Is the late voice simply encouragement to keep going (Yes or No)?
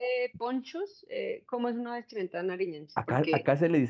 No